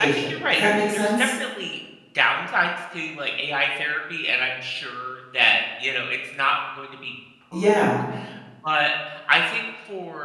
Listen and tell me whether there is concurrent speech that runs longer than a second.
Yes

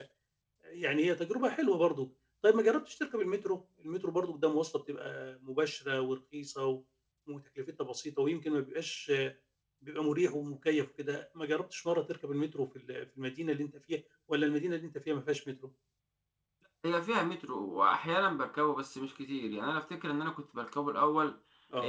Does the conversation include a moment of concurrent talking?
No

